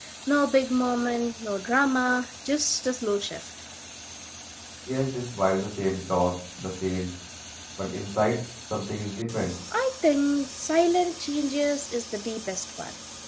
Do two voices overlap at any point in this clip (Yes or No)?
No